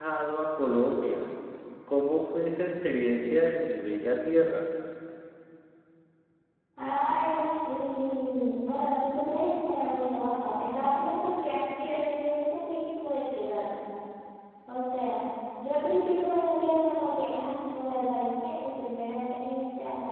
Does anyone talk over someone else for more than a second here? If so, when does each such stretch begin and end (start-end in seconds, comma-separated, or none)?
none